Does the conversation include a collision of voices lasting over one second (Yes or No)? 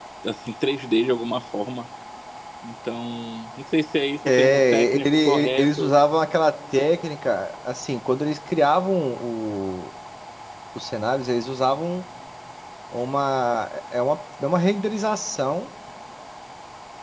Yes